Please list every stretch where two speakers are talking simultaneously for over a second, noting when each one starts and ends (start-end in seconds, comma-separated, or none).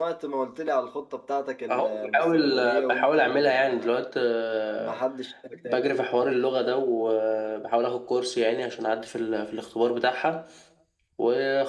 1.7-4.0